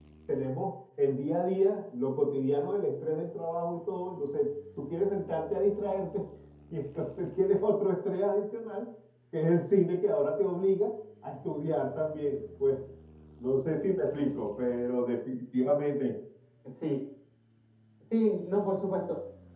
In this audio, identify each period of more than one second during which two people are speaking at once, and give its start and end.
none

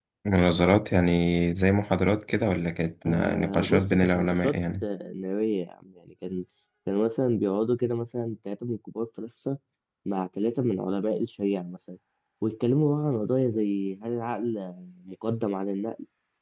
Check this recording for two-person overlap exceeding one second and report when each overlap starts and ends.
3.0-4.8

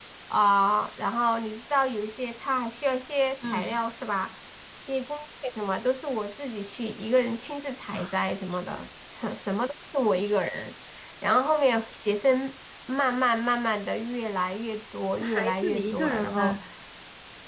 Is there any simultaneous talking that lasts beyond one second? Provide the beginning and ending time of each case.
15.2-16.6

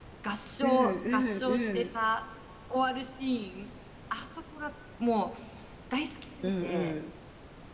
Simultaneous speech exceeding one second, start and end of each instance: 0.6-1.9

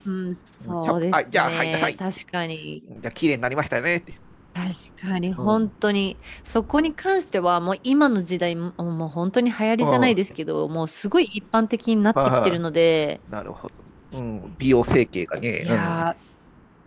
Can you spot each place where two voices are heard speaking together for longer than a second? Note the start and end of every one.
0.7-1.9

